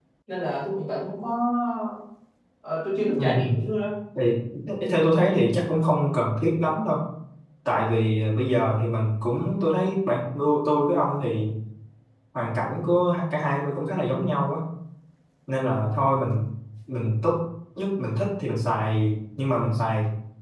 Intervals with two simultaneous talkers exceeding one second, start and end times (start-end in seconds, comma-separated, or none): none